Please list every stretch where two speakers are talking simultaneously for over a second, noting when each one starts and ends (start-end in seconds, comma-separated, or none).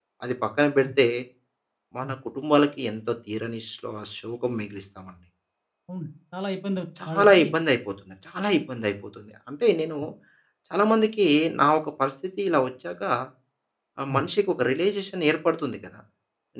none